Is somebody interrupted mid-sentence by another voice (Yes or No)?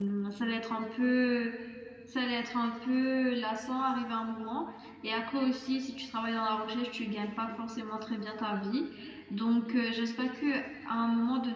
No